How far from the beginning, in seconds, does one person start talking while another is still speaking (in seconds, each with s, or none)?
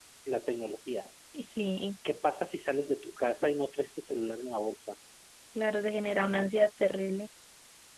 none